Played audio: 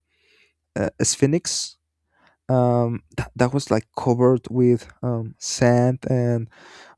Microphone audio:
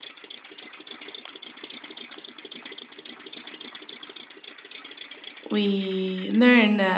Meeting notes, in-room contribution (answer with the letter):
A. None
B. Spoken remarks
B